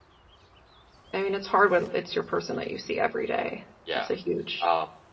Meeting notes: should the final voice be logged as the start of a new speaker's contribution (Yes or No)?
Yes